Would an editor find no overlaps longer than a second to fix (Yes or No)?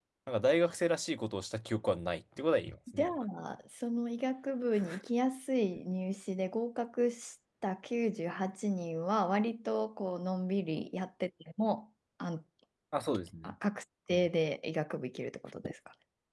Yes